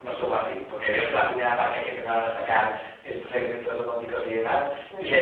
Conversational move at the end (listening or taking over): listening